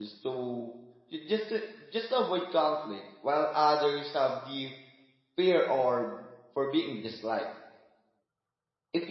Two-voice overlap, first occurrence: none

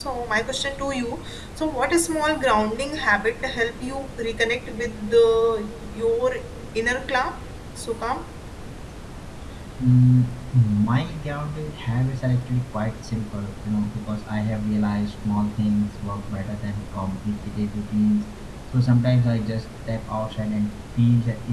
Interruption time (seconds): none

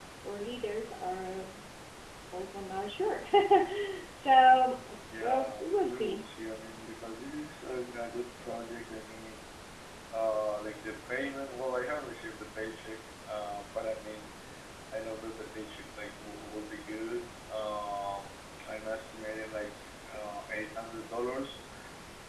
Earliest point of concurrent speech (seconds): 4 s

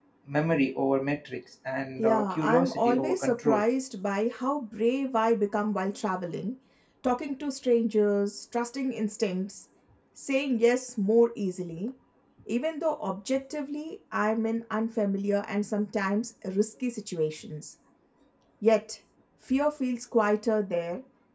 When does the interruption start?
2 s

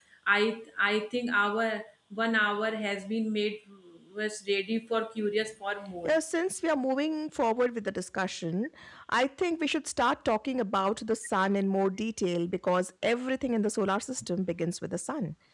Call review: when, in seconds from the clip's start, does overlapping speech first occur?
none

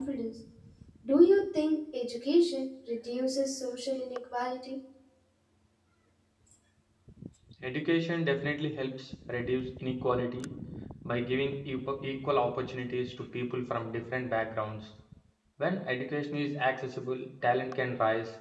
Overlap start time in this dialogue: none

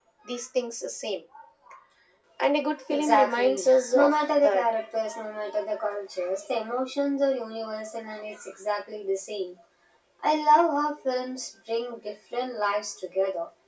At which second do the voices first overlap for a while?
3 s

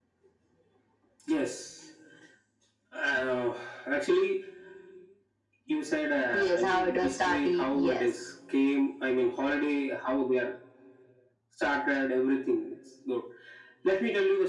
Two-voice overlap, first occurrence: 6 s

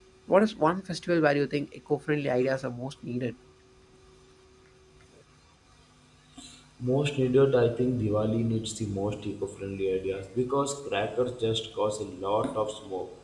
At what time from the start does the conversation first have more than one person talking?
none

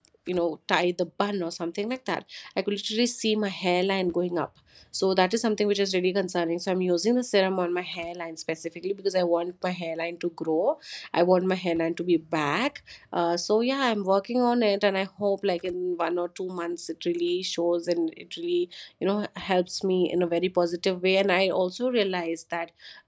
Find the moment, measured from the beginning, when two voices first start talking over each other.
none

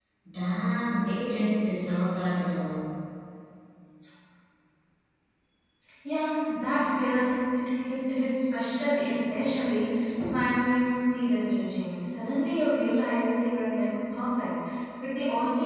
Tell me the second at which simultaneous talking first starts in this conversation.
none

